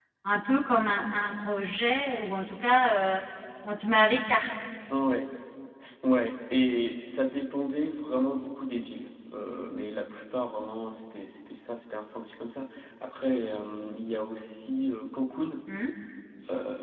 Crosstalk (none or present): none